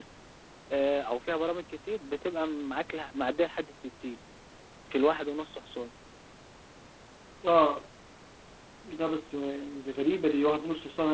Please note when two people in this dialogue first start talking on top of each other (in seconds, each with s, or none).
none